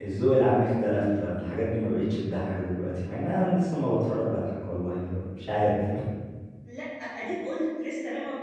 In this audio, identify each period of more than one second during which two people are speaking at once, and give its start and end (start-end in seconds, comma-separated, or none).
none